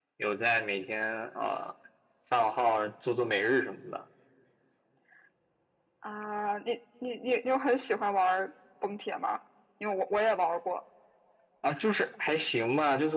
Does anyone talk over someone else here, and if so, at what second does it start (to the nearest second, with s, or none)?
none